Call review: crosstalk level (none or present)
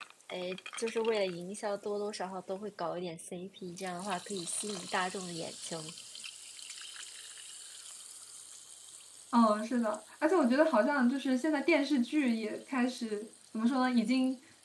none